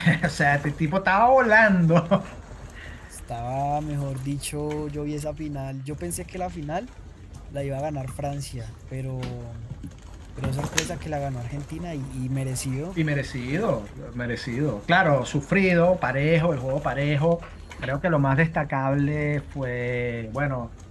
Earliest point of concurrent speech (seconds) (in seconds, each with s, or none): none